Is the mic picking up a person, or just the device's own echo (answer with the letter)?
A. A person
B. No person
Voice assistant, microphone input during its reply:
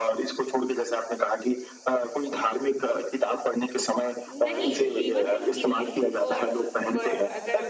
A